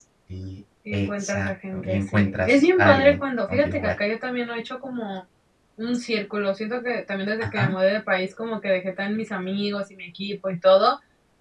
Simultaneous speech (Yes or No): Yes